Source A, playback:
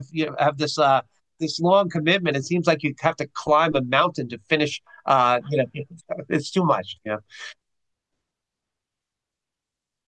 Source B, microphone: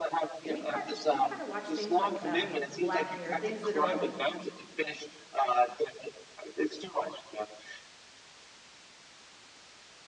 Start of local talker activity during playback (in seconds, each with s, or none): 0.4 s